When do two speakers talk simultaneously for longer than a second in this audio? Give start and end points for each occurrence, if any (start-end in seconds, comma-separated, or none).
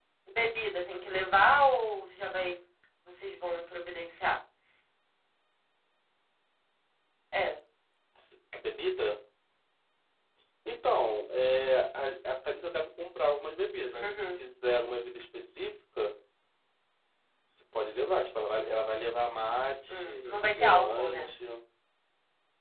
19.9-21.2